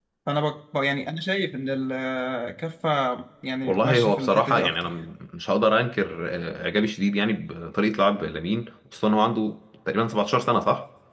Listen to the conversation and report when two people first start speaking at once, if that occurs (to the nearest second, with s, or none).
4 s